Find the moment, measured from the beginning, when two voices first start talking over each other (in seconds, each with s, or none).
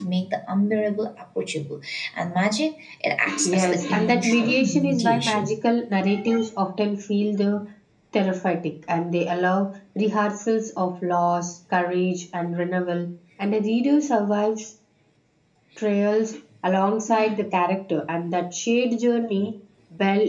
3.3 s